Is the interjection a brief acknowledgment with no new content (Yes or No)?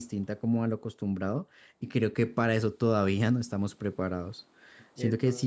Yes